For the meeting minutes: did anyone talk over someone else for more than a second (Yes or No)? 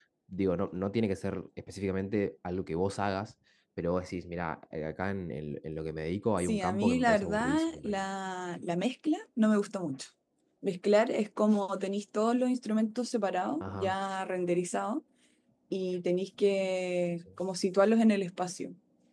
Yes